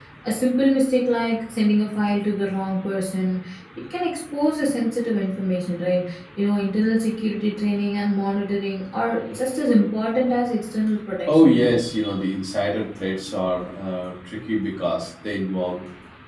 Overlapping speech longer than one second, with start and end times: none

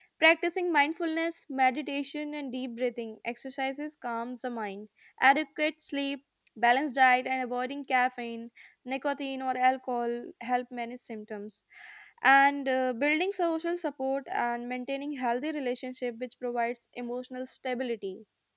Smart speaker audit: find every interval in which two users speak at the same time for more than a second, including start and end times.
none

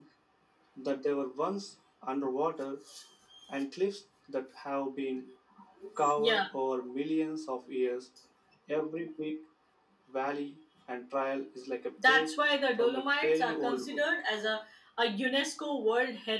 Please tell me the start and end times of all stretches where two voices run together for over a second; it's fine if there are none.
12.8-14.0

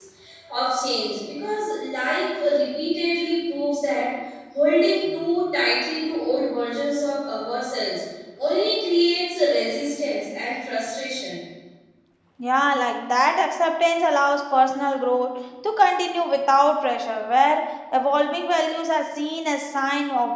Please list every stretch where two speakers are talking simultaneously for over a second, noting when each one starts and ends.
none

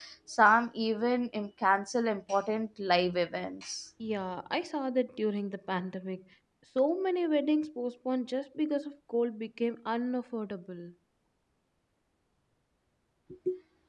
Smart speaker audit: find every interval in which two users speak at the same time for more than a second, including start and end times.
none

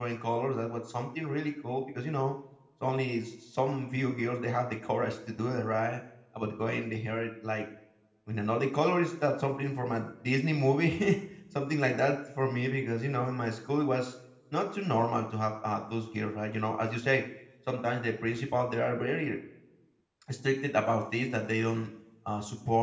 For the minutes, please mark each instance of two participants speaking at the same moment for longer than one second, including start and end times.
none

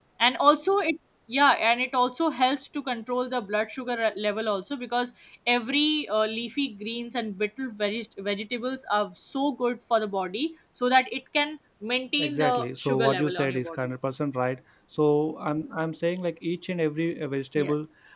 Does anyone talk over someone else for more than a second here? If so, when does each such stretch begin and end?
12.2-13.8

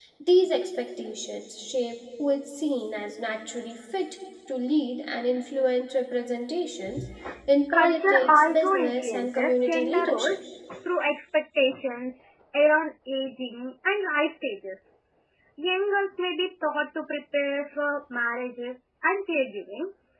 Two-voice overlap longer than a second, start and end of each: 7.7-10.4

